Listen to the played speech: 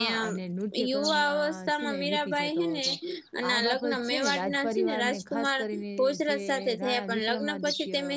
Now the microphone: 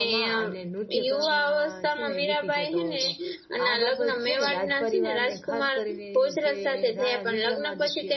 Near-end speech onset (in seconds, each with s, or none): none